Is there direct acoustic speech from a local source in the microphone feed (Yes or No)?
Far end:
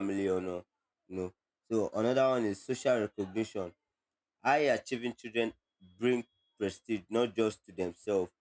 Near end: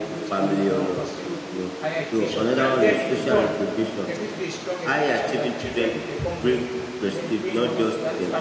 Yes